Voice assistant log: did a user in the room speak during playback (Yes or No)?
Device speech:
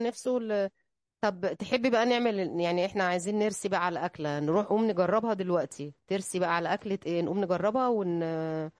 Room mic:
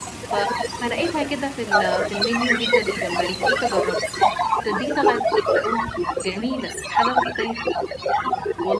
Yes